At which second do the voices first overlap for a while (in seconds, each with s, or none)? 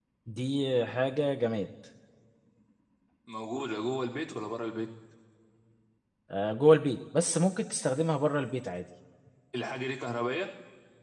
none